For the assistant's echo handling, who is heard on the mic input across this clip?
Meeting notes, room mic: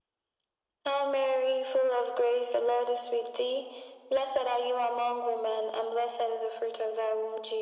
echo only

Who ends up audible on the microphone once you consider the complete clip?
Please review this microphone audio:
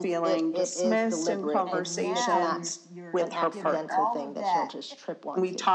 both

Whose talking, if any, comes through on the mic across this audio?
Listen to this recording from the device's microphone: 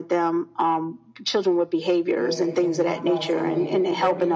both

